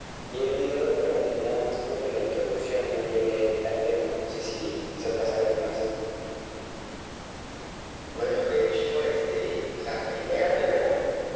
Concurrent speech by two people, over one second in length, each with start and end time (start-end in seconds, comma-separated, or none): none